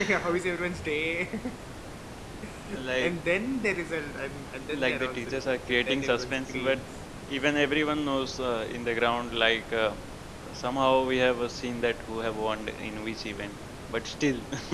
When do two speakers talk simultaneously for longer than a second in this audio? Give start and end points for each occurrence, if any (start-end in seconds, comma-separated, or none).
4.8-6.8